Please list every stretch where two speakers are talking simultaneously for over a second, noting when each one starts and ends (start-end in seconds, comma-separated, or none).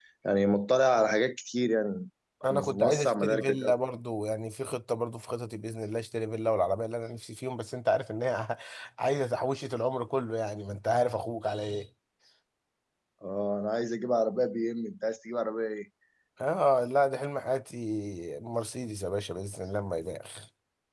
2.5-3.8